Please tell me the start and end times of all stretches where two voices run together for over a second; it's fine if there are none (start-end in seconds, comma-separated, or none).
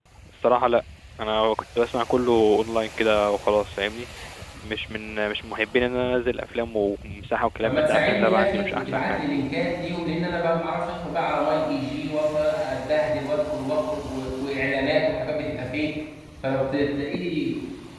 7.6-9.2